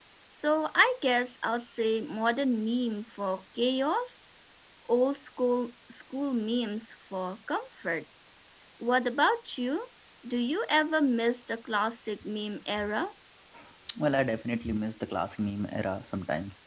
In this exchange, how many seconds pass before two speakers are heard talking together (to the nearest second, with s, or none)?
none